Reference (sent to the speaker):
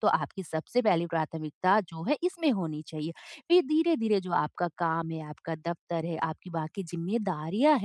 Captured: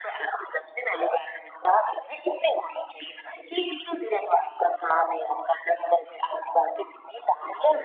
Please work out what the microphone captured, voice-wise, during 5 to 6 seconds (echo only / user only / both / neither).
echo only